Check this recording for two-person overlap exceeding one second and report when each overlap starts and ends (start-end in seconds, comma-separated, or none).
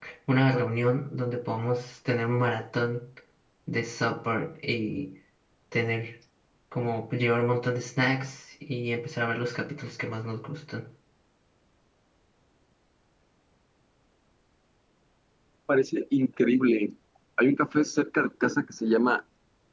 none